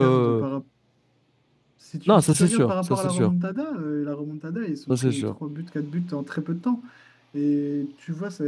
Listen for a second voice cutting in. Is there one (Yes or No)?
Yes